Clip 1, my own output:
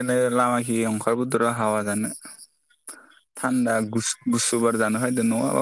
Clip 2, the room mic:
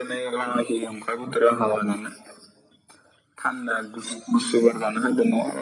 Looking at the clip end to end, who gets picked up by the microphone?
echo only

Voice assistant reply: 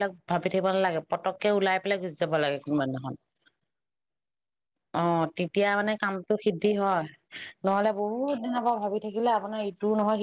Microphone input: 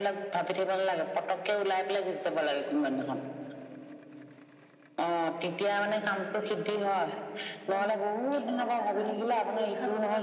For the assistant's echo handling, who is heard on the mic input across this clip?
both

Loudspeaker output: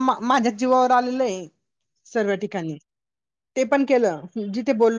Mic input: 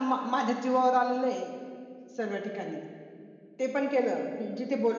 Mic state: echo only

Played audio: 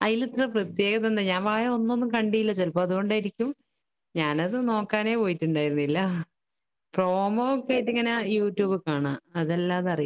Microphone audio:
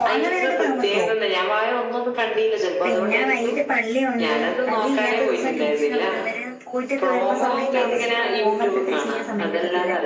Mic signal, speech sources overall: both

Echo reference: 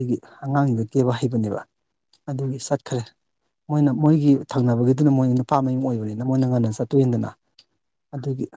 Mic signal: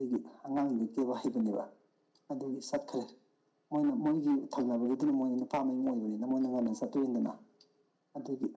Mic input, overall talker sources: echo only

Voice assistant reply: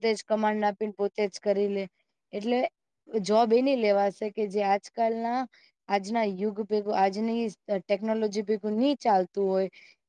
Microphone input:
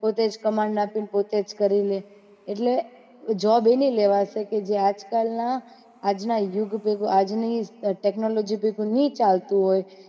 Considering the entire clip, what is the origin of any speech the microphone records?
echo only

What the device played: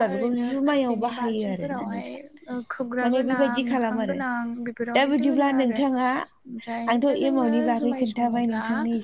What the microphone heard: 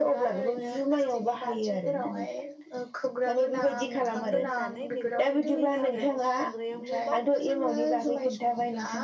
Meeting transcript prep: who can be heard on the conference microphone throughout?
both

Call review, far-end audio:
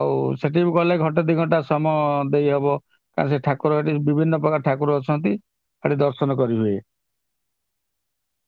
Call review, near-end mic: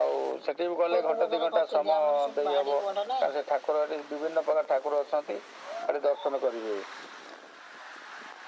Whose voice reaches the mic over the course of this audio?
both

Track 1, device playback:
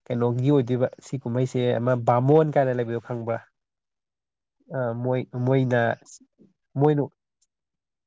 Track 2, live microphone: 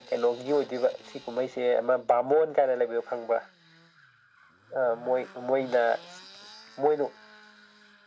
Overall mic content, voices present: echo only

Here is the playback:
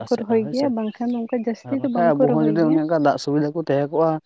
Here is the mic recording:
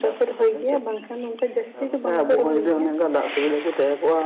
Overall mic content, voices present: echo only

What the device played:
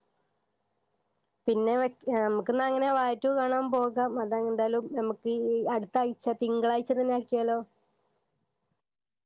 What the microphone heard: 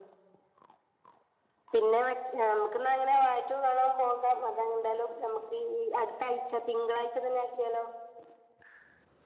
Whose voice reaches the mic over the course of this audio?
echo only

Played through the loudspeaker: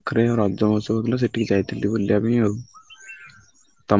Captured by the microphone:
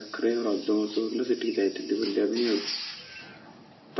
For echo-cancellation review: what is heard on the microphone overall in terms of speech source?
echo only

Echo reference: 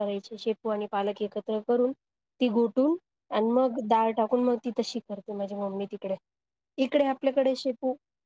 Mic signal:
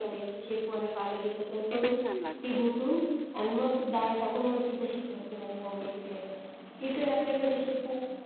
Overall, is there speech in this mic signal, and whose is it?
both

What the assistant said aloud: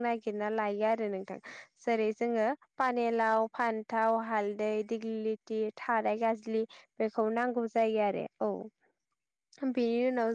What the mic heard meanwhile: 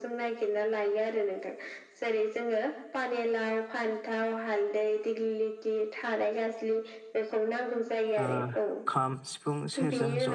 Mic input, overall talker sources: both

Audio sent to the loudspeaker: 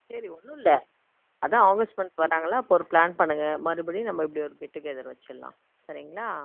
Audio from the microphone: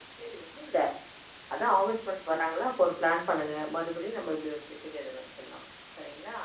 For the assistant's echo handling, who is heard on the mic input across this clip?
echo only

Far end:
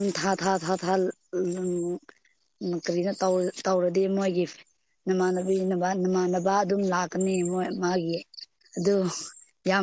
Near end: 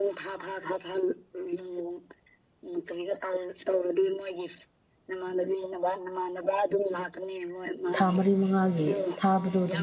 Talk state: both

